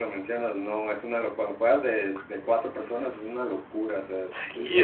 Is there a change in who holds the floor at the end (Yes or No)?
Yes